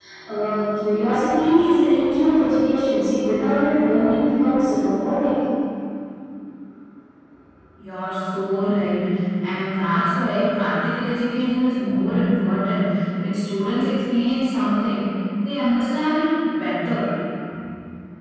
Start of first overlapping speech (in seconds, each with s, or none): none